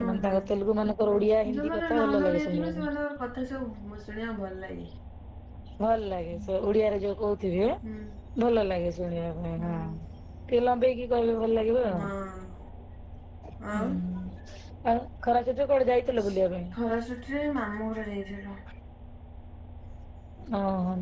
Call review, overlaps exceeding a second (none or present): present